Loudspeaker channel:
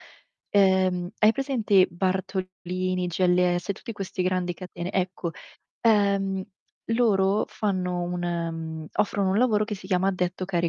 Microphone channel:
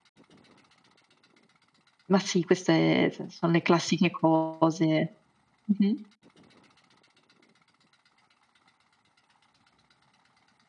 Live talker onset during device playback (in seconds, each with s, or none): 2.1 s